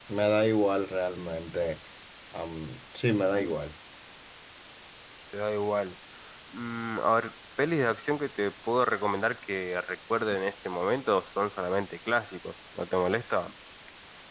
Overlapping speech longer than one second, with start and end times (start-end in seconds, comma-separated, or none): none